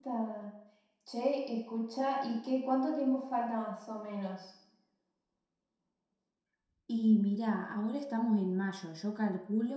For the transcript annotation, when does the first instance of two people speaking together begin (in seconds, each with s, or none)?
none